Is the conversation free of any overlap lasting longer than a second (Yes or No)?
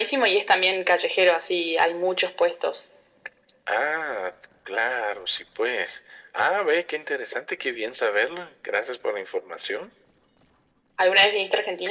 Yes